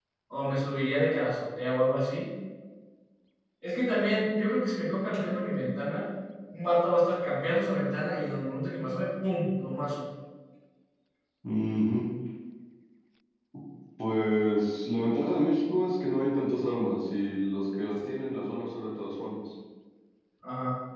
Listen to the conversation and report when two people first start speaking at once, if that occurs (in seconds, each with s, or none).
none